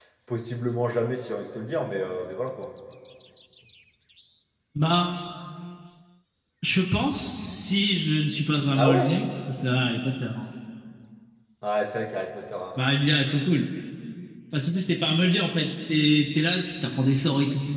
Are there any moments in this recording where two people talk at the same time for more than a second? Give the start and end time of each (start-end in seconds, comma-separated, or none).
none